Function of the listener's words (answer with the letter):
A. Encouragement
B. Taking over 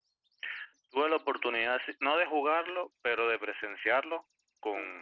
A